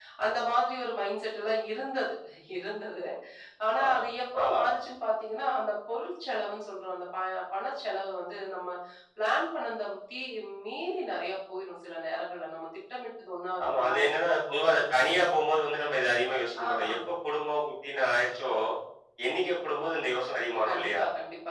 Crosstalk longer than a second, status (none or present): none